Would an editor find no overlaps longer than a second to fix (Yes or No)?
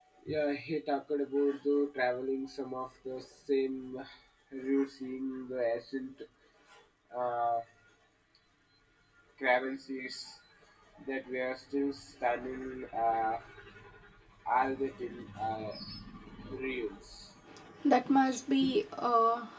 Yes